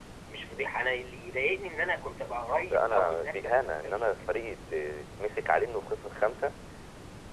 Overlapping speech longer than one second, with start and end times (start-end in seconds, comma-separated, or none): 2.7-4.3